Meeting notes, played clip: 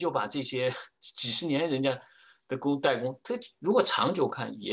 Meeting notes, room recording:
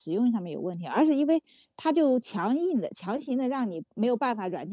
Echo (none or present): none